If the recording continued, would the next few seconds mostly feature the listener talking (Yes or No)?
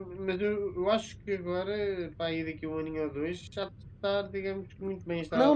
Yes